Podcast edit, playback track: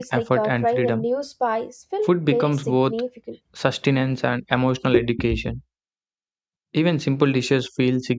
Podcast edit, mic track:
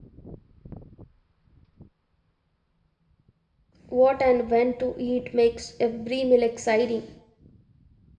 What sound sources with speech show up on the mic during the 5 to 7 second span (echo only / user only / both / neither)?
user only